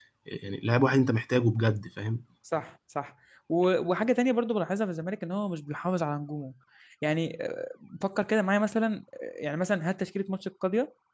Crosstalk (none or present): none